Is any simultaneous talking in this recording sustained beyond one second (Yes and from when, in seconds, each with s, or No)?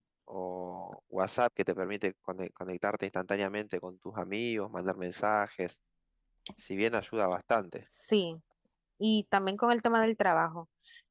No